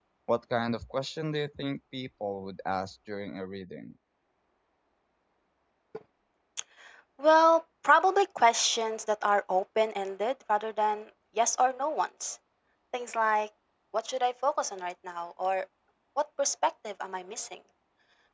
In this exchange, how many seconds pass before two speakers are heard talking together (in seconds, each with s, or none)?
none